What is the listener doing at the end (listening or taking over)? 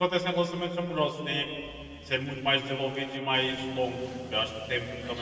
listening